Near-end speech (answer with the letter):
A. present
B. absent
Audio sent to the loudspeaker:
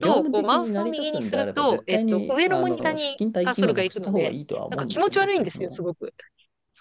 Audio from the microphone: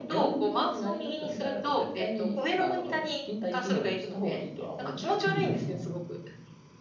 A